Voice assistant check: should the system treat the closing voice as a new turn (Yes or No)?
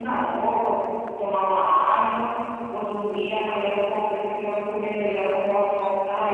Yes